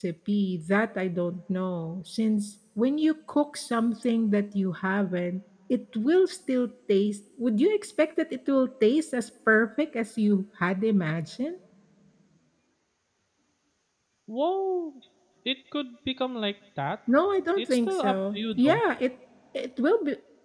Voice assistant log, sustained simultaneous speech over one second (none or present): present